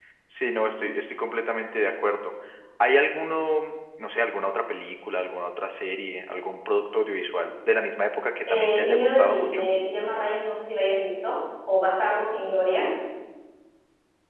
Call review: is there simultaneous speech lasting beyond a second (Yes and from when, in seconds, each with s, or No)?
Yes, from 8.5 s